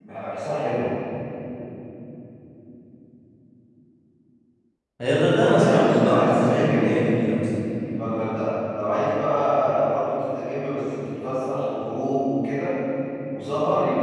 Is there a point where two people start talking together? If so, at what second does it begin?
5.4 s

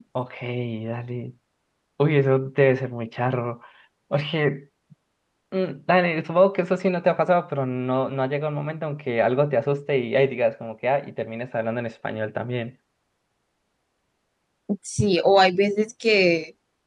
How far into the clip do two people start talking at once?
none

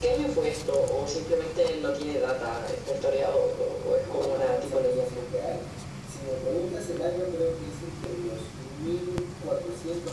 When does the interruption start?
4.0 s

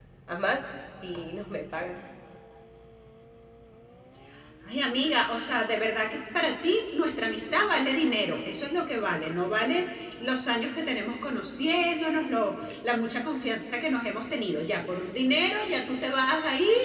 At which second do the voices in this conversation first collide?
none

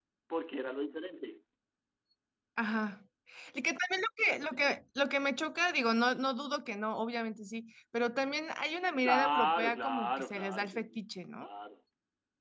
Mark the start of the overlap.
9.0 s

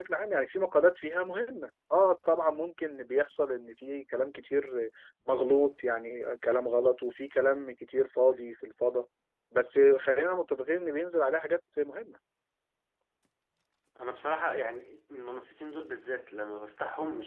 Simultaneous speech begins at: none

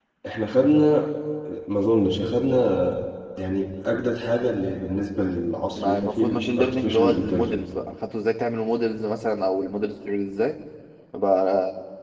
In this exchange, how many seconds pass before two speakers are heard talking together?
5.7 s

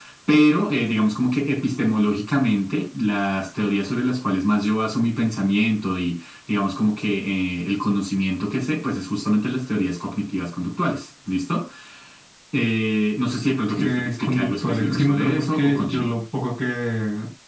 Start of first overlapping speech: 13.8 s

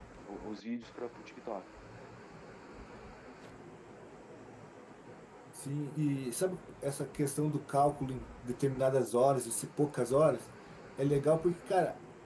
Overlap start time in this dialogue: none

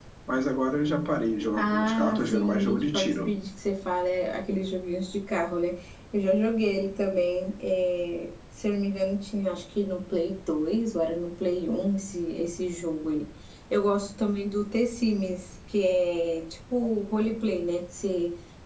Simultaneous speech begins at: 1.6 s

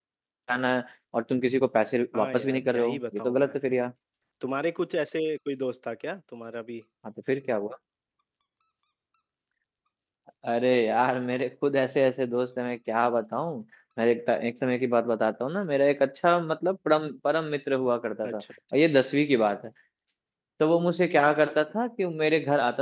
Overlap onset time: 2.2 s

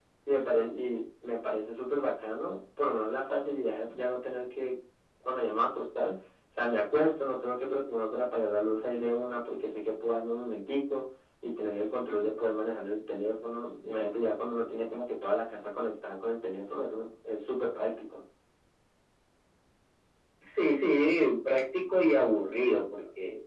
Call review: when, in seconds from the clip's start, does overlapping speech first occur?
none

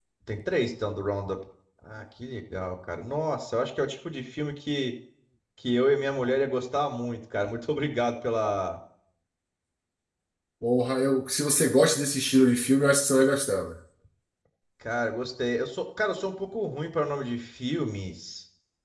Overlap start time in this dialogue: none

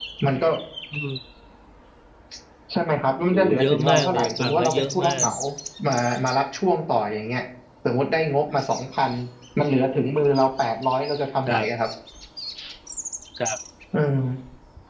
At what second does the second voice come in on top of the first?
3.3 s

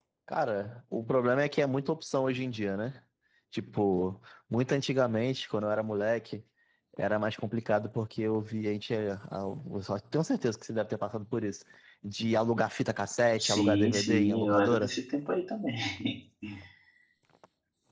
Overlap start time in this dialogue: 13.4 s

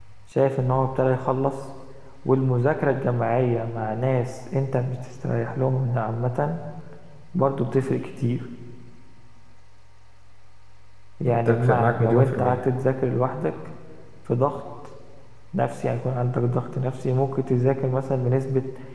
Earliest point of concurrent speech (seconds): 11.2 s

